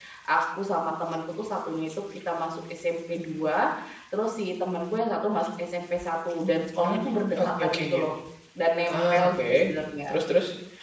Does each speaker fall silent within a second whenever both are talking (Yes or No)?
No